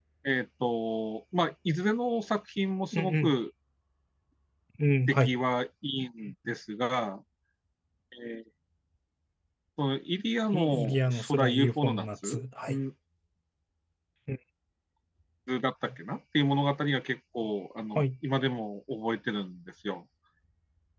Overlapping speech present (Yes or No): Yes